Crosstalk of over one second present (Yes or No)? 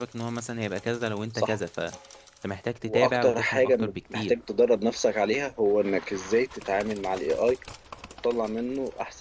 Yes